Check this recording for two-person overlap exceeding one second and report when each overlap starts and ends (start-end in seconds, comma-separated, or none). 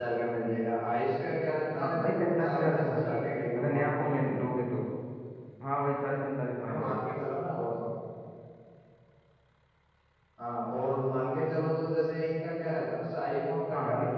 1.8-3.1